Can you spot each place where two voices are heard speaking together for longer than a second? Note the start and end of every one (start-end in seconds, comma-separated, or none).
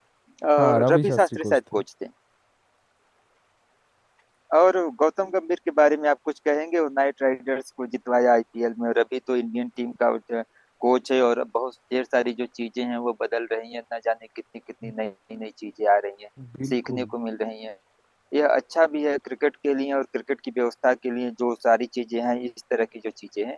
0.6-1.8